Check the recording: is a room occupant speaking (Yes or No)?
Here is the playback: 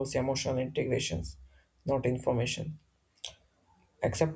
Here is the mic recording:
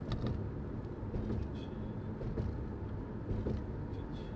No